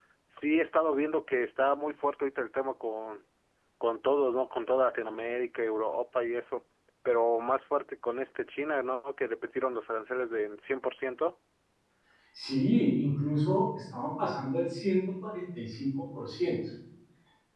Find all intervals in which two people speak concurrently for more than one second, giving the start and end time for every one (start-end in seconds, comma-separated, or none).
none